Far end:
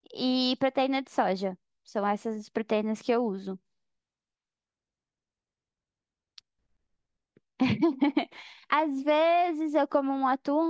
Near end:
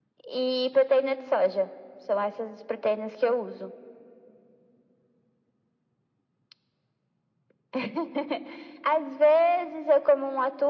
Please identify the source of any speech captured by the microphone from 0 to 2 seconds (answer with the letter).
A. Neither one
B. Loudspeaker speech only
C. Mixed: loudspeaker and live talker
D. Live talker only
B